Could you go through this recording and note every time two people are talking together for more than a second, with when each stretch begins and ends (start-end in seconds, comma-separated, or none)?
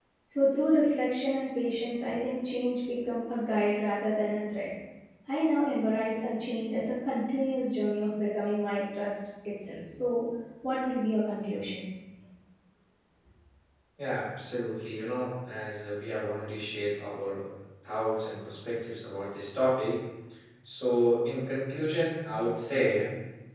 none